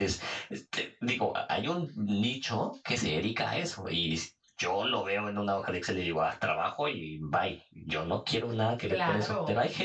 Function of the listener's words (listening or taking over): listening